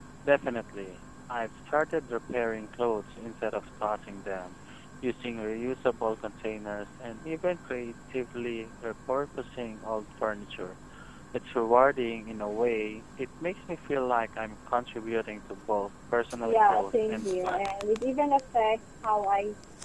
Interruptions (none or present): present